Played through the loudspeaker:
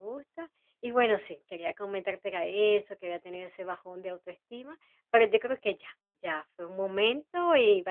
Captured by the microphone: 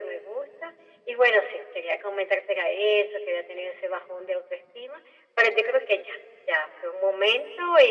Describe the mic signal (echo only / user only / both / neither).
echo only